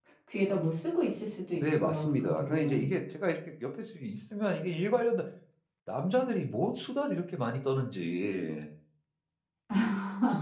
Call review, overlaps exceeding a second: present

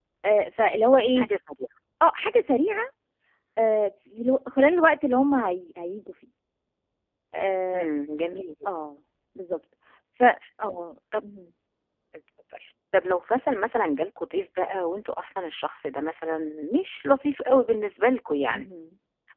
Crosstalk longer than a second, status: none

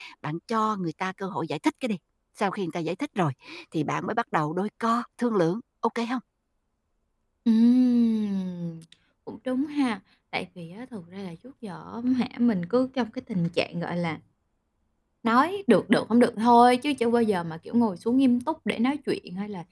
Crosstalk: none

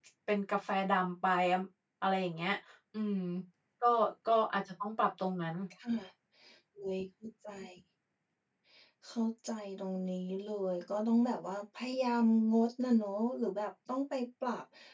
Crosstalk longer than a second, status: none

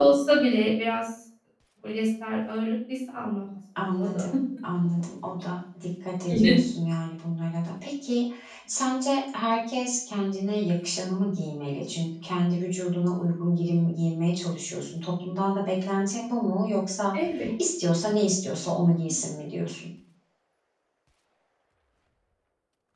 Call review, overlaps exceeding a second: none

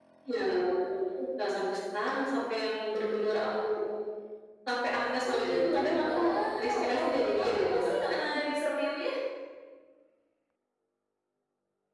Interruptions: present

